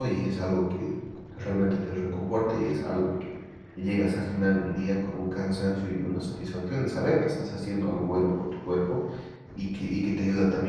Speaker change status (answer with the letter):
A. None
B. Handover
A